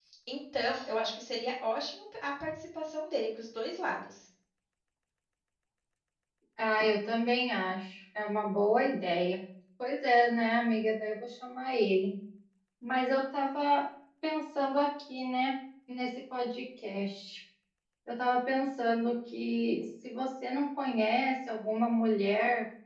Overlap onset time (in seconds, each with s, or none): none